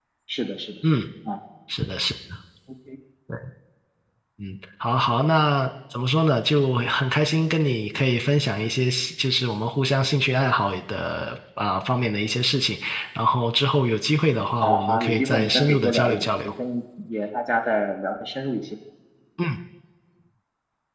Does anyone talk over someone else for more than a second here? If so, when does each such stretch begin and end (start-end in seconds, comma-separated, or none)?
14.6-16.5